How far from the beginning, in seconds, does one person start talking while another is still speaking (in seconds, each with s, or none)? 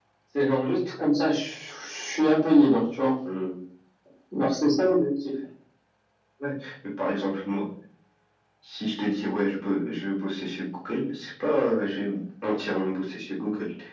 none